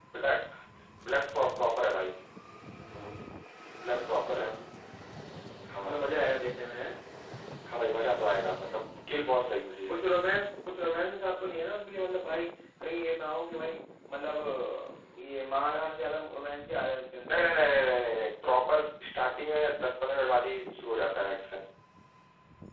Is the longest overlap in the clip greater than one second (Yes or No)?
No